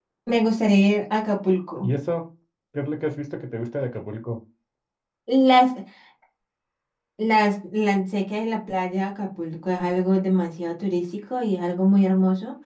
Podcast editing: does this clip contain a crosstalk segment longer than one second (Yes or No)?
No